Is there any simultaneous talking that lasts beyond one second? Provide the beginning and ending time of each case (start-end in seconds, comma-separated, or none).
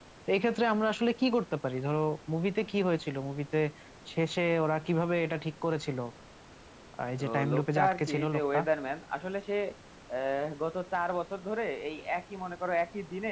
7.2-8.6